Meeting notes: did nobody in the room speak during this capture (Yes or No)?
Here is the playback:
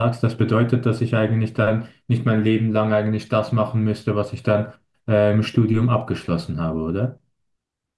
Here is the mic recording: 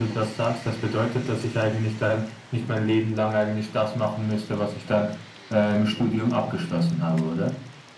Yes